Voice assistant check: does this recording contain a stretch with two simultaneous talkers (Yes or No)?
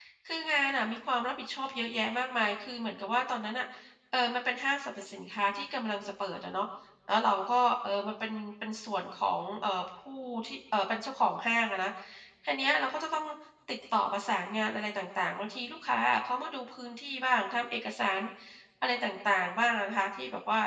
No